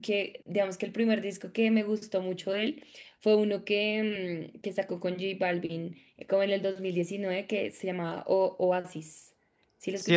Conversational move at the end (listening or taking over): taking over